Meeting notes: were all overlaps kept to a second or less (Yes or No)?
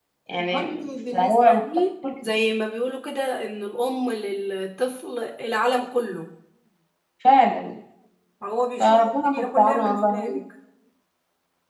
No